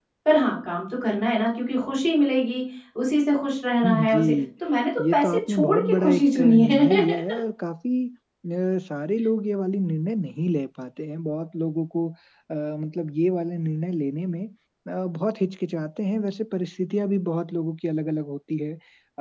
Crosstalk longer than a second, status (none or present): present